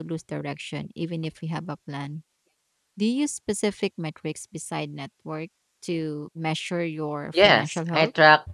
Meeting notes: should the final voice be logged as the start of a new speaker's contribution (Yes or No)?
Yes